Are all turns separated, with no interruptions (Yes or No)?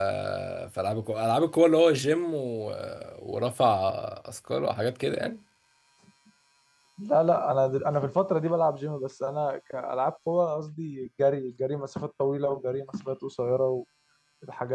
Yes